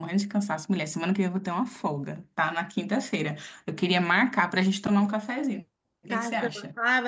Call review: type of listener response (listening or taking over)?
taking over